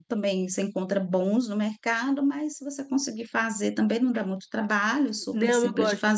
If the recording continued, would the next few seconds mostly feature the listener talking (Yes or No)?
Yes